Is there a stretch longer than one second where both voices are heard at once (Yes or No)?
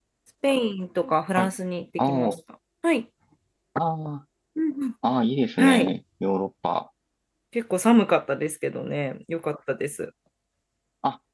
No